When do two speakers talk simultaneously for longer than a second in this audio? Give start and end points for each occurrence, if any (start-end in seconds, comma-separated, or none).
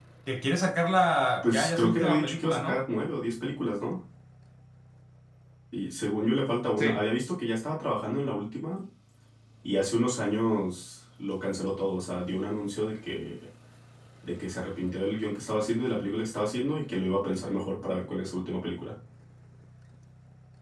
1.4-2.8